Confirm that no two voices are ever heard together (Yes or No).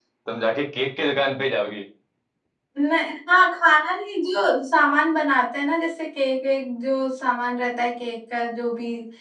Yes